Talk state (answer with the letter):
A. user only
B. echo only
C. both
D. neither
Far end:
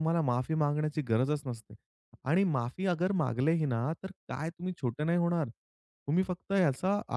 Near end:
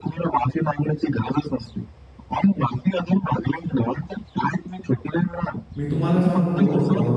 C